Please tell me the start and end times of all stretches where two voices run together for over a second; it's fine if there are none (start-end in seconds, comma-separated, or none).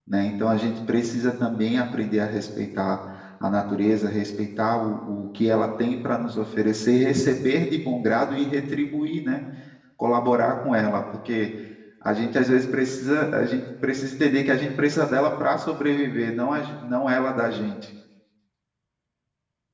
none